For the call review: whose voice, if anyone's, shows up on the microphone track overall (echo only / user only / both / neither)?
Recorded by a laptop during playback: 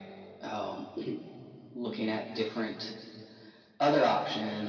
both